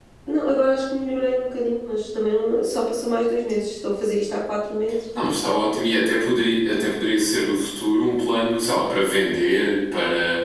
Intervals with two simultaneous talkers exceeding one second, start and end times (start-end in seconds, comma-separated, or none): none